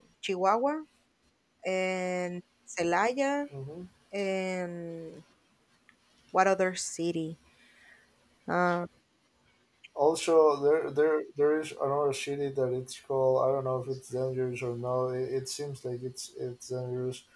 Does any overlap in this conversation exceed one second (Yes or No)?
No